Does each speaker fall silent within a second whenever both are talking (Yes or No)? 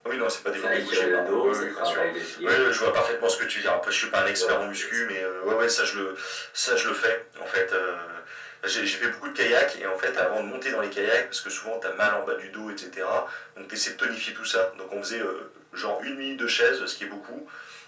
No